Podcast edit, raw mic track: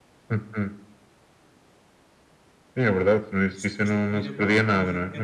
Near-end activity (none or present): present